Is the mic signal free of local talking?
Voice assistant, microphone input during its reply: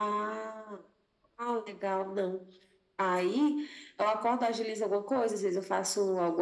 Yes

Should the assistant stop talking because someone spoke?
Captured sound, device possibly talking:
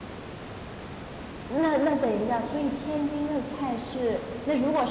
Yes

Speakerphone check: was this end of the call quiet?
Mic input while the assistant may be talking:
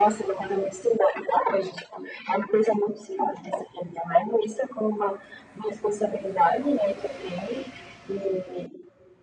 Yes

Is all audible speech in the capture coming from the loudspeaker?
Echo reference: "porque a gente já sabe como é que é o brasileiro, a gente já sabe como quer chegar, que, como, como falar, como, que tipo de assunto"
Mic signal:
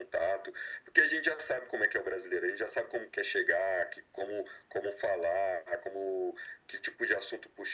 Yes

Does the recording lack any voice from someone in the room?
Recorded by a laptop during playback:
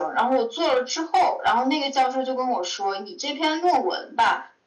Yes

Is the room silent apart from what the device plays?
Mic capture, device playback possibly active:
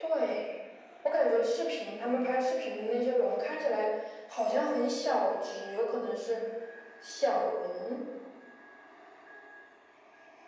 Yes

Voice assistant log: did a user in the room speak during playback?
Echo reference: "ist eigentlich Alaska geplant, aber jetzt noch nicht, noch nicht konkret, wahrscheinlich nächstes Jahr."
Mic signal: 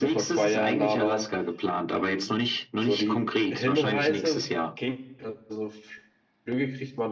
Yes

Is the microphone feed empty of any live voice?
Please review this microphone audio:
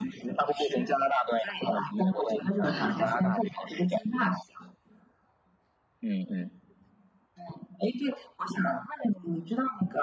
No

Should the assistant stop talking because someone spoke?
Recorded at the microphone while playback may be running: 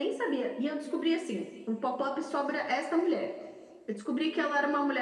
No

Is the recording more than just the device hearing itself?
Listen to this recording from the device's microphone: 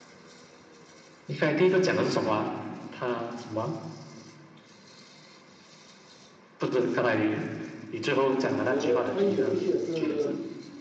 Yes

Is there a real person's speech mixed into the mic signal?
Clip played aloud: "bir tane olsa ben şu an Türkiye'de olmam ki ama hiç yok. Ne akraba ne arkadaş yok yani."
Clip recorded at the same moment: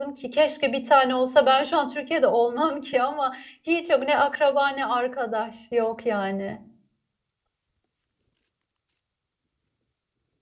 No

